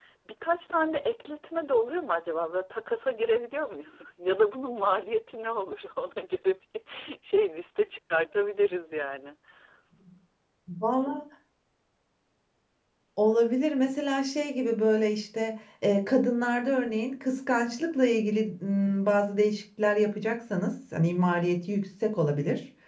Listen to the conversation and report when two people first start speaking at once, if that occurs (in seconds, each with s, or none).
none